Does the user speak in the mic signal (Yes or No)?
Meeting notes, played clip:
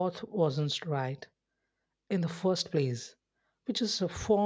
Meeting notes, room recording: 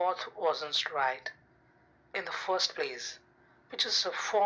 No